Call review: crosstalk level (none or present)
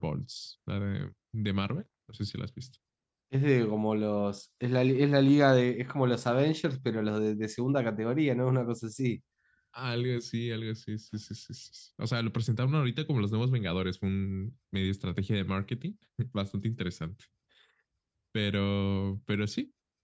none